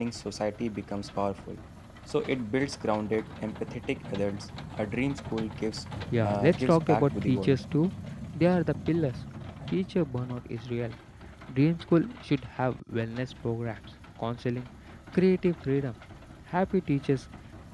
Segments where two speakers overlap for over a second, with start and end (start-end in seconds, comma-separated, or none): 6.2-7.6